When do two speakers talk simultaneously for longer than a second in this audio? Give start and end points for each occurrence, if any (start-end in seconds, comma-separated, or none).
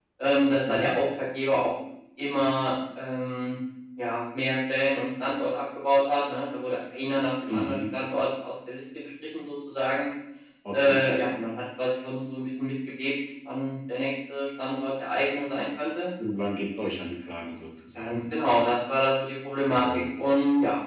none